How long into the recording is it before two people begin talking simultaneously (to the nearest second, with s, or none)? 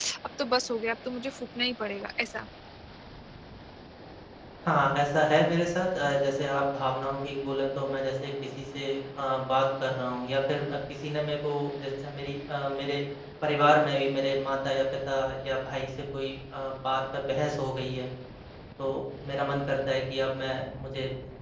none